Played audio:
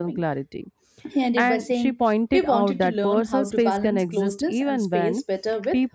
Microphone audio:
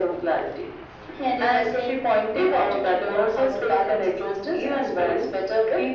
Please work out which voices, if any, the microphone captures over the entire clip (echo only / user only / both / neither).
echo only